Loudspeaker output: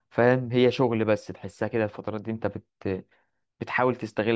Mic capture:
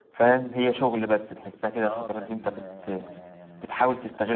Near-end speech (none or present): present